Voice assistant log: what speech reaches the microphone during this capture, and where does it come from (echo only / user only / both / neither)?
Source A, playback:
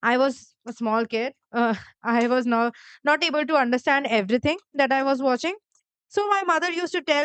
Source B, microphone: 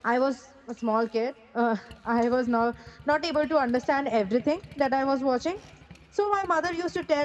echo only